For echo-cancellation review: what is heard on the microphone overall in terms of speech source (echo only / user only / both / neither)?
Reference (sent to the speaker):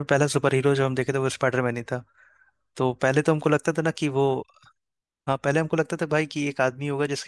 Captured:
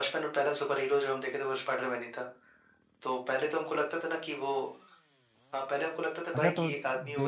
both